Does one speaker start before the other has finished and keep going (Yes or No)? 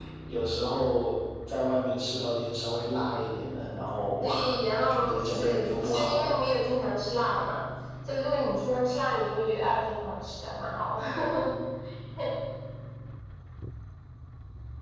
Yes